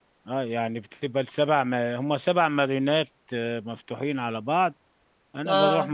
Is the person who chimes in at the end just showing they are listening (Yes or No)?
Yes